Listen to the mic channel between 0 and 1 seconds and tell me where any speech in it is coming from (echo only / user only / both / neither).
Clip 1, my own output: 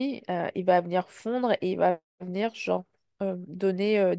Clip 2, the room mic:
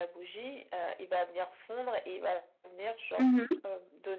echo only